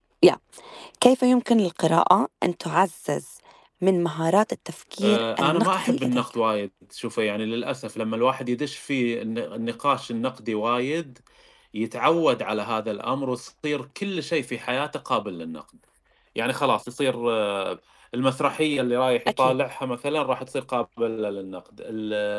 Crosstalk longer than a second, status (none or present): present